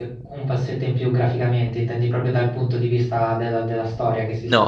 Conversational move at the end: taking over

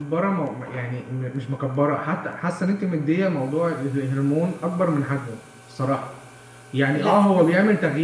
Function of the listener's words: listening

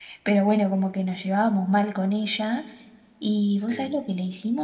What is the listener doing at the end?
listening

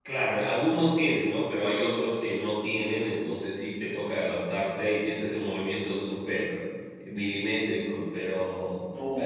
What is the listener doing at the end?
taking over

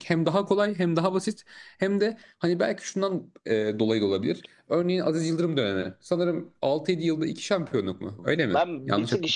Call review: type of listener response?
taking over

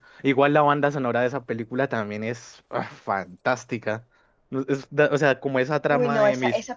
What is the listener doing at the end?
taking over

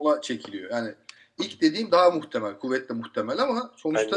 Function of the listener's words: listening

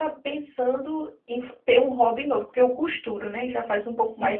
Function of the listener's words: listening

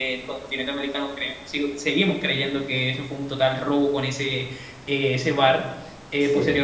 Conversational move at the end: listening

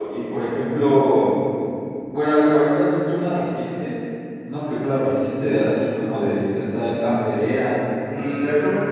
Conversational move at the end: taking over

